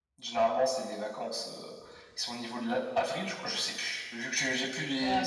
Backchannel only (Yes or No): Yes